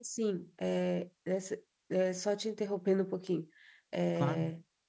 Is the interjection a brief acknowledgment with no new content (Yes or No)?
Yes